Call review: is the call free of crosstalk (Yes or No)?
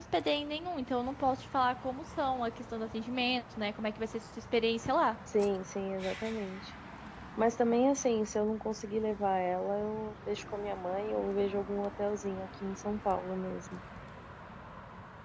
Yes